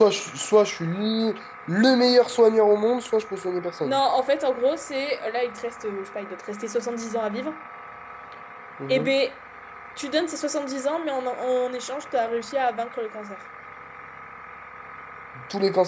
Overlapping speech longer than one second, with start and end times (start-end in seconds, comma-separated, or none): none